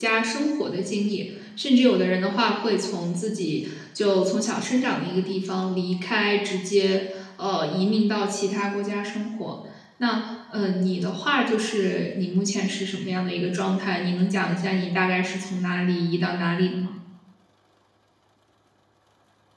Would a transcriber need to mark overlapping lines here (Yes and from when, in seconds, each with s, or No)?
No